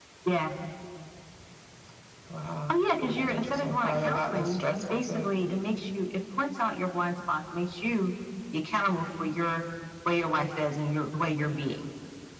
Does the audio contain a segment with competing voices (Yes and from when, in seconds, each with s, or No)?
Yes, from 2.7 s